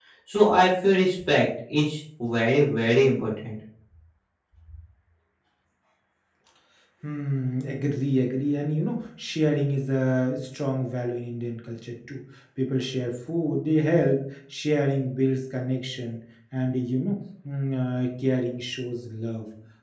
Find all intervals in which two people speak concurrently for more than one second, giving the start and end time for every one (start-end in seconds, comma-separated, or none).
none